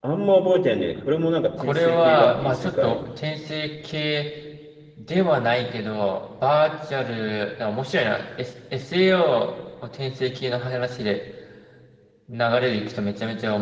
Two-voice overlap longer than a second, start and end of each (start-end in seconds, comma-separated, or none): 1.6-3.0